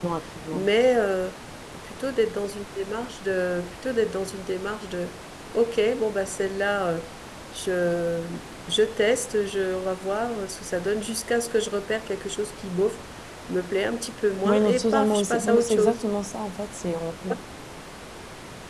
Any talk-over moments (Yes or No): Yes